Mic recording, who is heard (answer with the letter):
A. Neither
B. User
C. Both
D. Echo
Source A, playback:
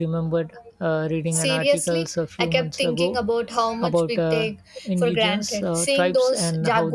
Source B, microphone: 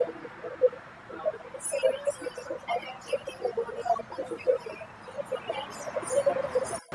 D